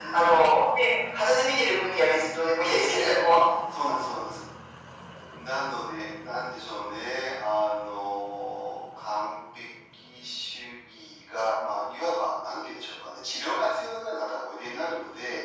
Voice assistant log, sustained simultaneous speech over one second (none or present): none